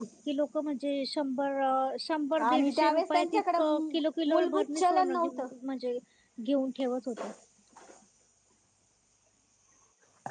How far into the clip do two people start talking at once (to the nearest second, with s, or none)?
2 s